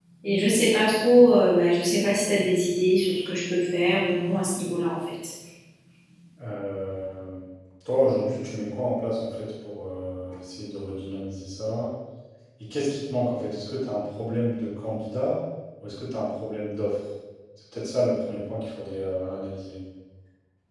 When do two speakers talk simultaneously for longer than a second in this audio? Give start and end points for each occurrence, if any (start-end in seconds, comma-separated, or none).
none